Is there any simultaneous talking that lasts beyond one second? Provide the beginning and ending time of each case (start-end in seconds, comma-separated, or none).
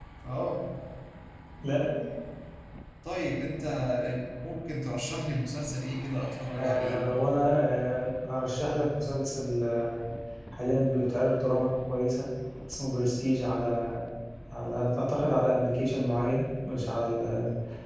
none